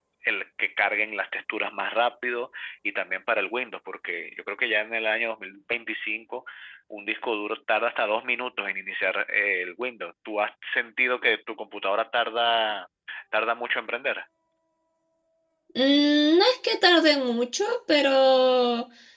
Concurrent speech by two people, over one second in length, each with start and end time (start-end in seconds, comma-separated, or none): none